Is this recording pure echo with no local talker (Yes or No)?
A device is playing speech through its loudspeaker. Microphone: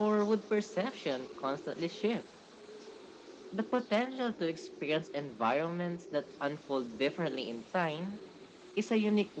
Yes